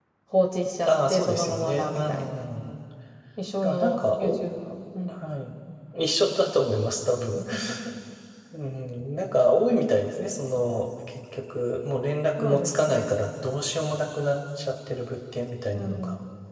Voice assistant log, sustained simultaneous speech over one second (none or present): present